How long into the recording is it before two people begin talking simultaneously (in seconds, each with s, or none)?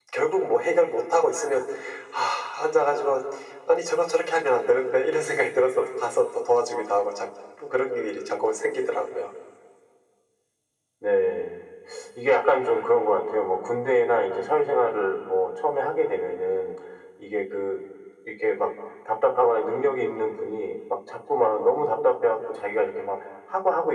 none